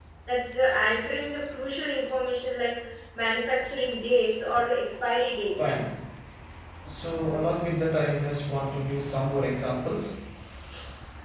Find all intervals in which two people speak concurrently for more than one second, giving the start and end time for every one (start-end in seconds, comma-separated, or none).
none